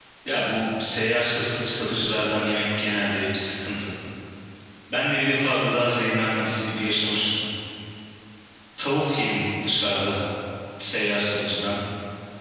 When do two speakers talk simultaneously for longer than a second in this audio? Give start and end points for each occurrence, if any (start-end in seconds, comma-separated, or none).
none